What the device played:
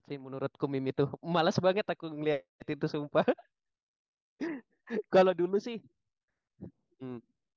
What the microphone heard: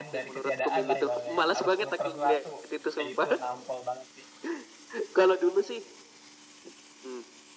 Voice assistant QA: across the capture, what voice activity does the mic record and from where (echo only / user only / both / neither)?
both